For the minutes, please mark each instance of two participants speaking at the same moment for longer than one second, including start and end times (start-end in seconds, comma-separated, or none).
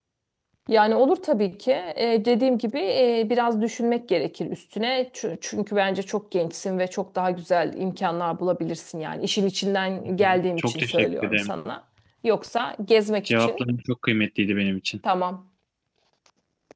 10.2-11.5